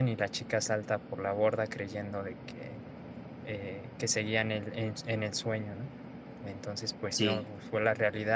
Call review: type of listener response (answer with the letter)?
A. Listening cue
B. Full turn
A